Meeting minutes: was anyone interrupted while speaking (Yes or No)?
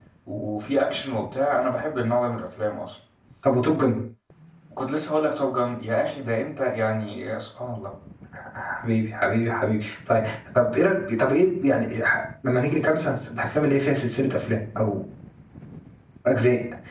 No